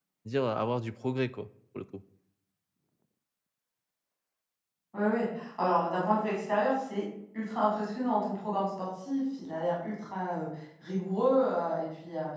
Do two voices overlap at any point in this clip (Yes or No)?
No